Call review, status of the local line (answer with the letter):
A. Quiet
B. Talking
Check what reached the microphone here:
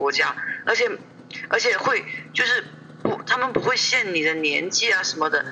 A